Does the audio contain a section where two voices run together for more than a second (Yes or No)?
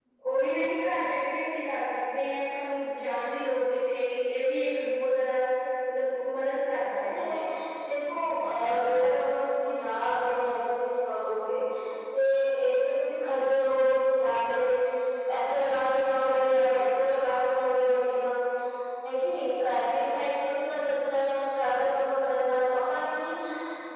No